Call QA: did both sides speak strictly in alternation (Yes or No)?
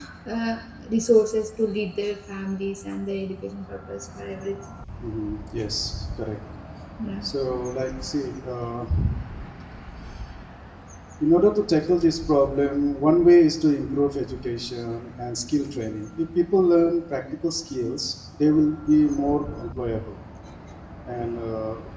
Yes